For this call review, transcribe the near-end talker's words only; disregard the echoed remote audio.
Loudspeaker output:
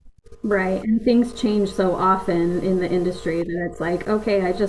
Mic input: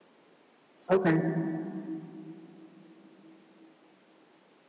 Okay,

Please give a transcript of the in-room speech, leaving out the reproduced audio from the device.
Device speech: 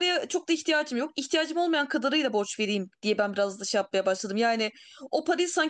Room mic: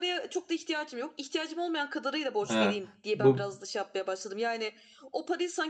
Ha, bu

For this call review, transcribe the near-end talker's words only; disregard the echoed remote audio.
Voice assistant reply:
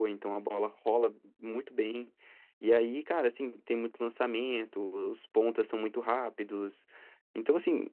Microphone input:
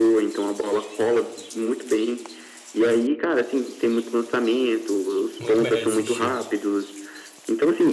muito melhor de assistir.

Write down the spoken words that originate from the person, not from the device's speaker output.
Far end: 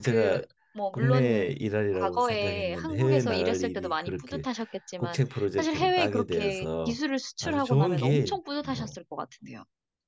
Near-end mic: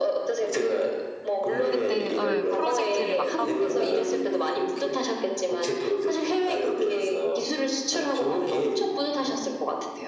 그때 어, 프로젝트를 막 하고

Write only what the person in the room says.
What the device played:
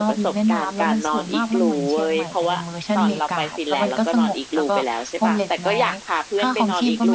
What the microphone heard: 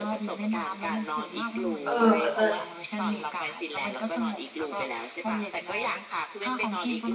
เออเลิศ

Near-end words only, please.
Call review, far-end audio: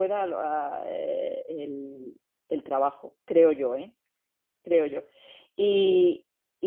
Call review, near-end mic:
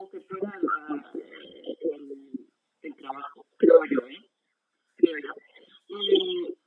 none

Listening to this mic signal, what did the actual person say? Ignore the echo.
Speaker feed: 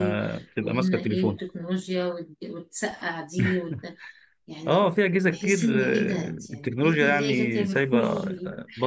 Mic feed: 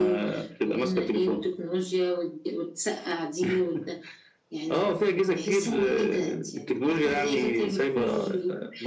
none

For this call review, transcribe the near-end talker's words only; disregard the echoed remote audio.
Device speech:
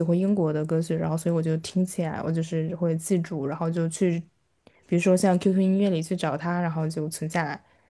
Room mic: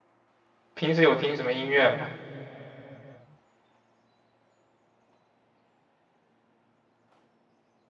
平时有听什么音乐吗？

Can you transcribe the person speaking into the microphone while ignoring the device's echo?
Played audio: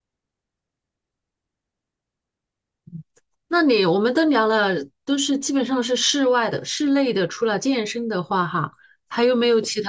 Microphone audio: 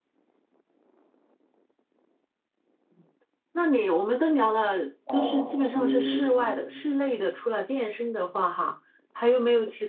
哦，你

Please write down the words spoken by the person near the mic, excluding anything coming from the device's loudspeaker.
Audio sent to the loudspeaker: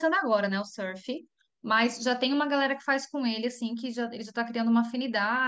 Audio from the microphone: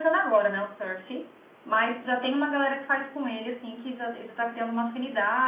none

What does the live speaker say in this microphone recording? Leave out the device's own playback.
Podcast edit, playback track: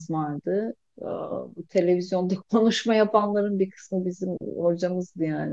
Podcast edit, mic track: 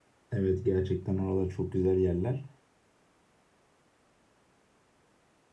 Evet gerçekten oralar çok güzel yerler.

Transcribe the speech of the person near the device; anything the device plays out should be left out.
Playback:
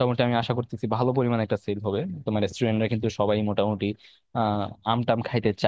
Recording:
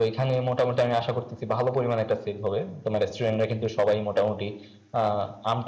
none

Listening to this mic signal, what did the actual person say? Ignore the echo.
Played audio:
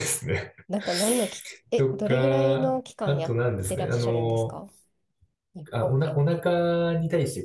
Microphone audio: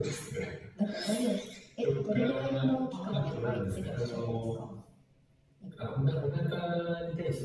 ああ、はい。

